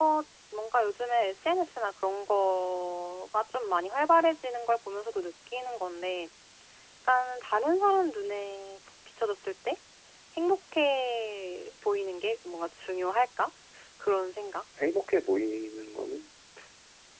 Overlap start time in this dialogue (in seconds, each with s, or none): none